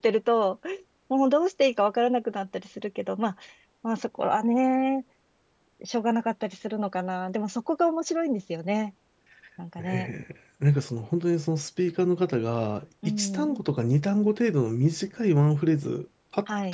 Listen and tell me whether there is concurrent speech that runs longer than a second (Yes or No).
No